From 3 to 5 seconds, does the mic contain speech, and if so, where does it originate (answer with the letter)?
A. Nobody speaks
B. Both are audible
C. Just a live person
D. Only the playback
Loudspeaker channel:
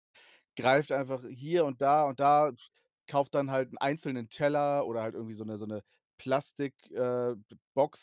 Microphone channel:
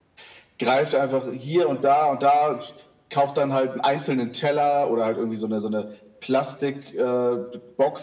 D